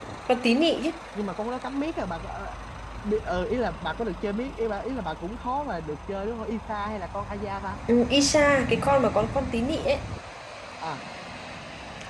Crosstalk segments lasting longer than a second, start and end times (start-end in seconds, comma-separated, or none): none